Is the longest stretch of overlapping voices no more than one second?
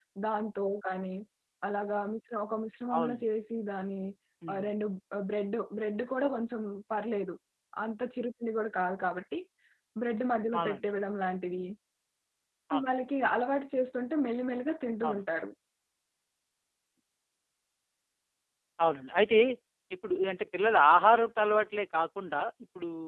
Yes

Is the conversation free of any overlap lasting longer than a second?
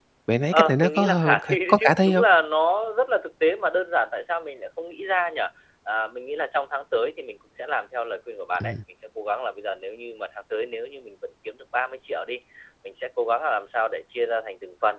No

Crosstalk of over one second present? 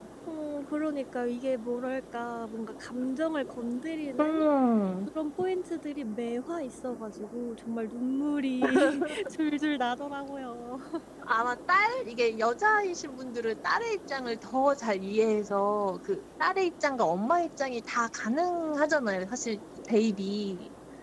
No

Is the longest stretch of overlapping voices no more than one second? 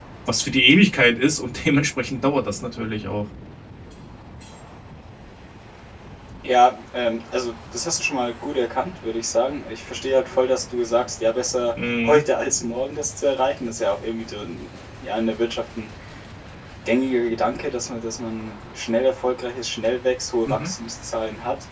Yes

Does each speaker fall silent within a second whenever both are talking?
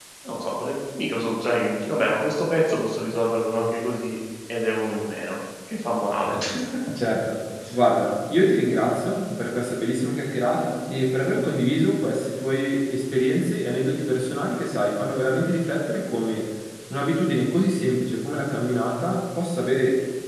Yes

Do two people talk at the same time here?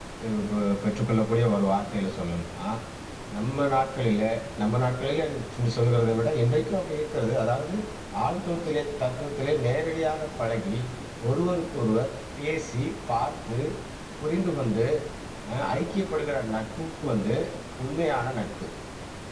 No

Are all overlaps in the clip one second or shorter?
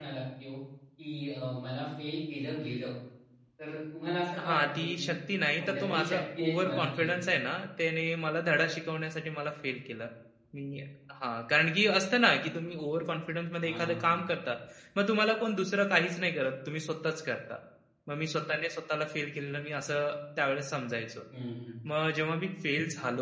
No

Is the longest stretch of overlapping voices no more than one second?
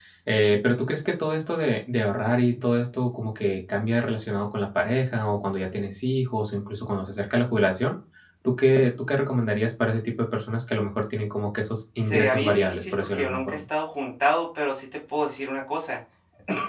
No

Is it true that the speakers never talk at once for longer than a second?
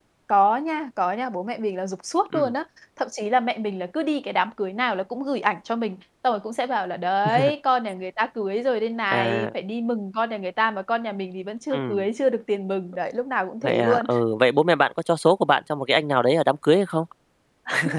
Yes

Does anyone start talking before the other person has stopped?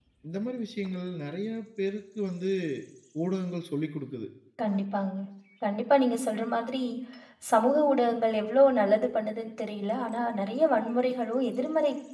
No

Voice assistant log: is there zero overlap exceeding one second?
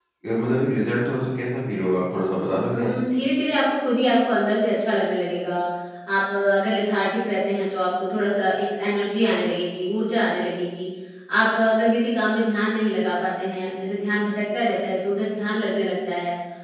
Yes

